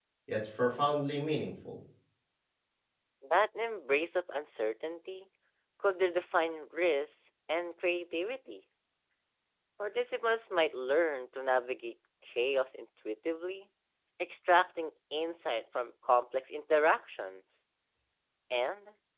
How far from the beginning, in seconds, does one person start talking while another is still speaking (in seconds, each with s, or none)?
none